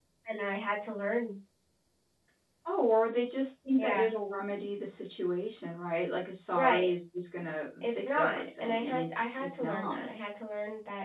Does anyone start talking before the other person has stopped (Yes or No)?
Yes